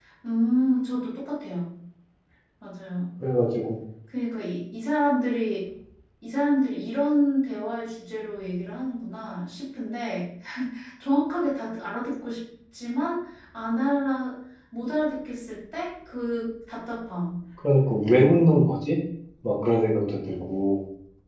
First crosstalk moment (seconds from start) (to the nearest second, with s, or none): none